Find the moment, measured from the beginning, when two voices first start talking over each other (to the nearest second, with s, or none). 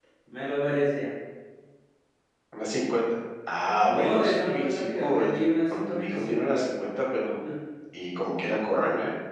4 s